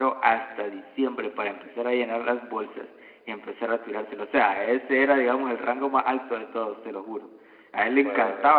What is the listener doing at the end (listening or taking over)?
listening